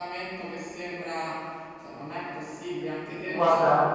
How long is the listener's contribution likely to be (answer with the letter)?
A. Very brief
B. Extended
B